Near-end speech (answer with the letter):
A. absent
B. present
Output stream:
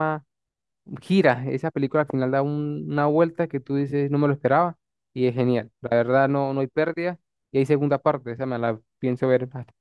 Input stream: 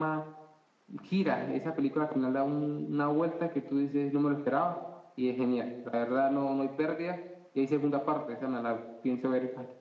A